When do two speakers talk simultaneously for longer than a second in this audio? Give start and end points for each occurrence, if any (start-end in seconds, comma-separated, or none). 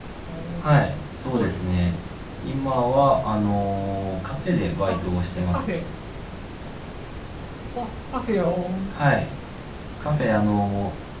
none